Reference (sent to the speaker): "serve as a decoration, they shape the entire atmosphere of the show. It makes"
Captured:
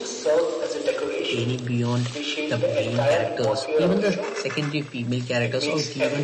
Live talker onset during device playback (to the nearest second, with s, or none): 1 s